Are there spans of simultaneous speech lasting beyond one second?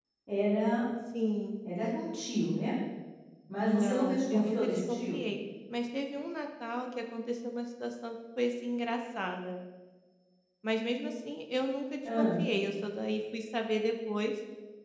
Yes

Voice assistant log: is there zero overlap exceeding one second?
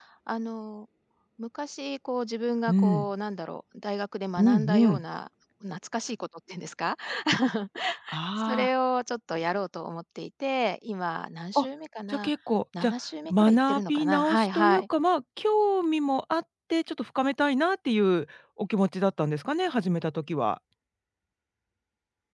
No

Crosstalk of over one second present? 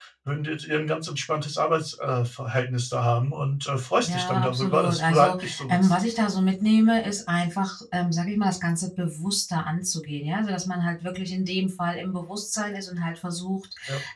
Yes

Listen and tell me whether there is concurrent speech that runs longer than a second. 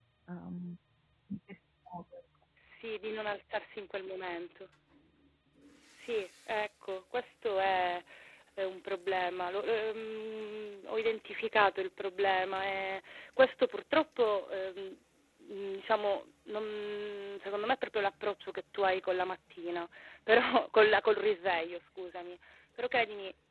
No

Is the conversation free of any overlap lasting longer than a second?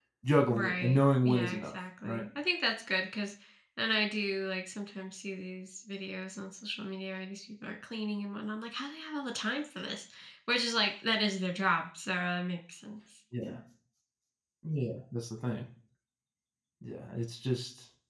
No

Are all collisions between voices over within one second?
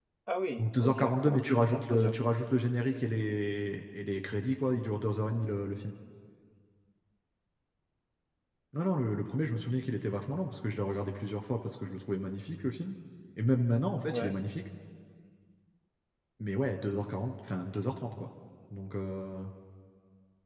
No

